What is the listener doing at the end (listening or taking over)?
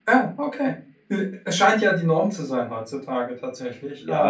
taking over